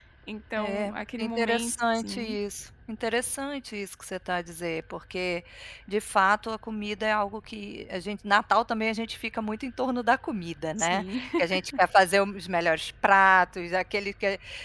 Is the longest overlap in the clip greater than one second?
Yes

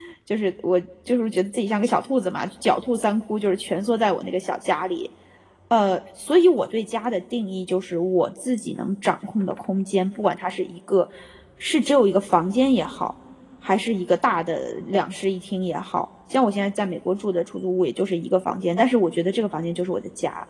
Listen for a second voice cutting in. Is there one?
No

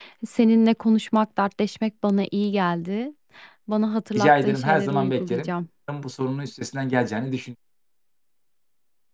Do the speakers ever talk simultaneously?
Yes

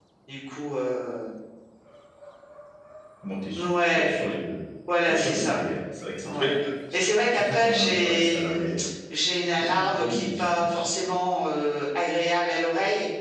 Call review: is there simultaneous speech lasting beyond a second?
Yes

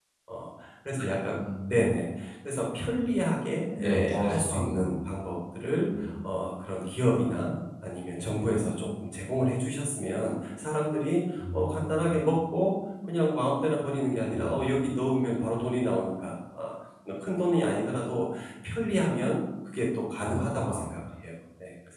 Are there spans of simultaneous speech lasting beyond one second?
Yes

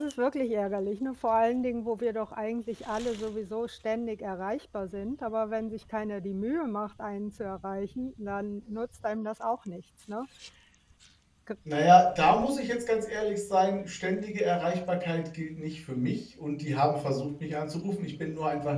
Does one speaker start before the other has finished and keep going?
No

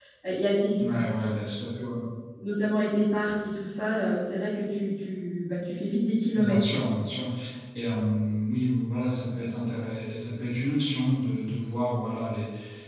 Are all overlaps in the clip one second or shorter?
Yes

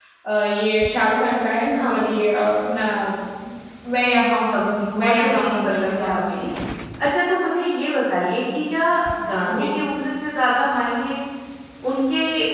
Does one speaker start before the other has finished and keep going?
Yes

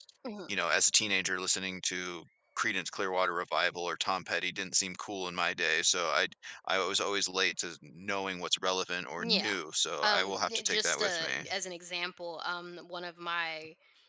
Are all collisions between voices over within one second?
No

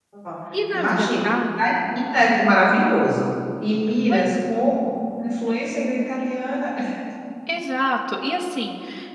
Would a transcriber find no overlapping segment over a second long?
Yes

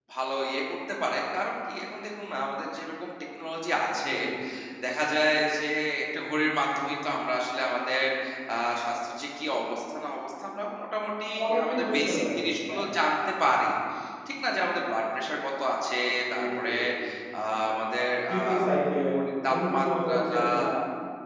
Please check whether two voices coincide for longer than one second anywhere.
Yes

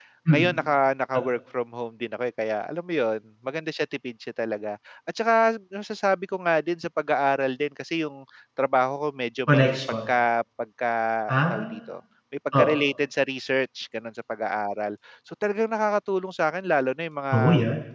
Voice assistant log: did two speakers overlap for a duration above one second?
No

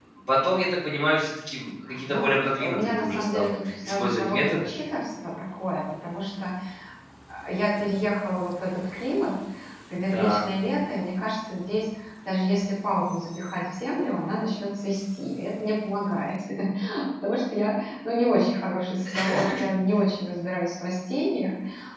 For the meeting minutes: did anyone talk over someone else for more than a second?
Yes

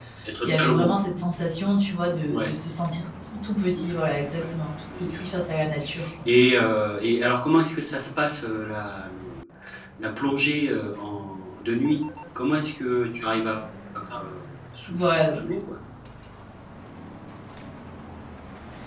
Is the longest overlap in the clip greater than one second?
No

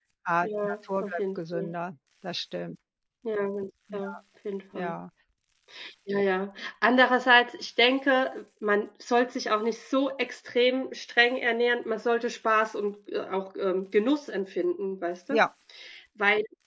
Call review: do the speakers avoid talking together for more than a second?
No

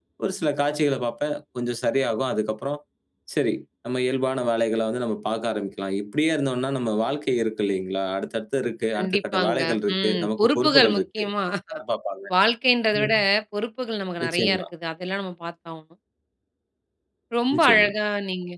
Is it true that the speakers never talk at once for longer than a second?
No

